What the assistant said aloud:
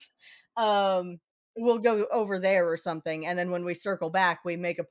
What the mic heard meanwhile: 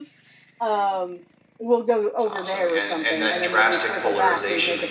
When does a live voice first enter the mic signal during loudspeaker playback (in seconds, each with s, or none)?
2.1 s